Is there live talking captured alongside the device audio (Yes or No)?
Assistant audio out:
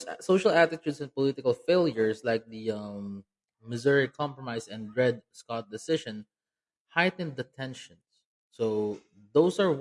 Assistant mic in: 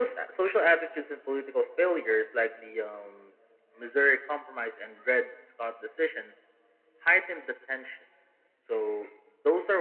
No